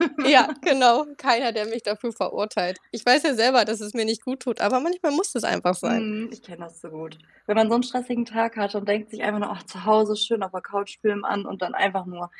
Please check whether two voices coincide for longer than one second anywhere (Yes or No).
No